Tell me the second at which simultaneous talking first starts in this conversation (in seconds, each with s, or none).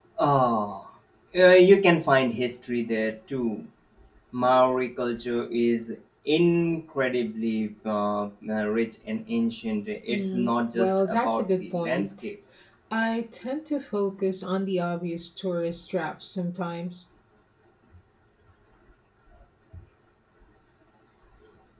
10.1 s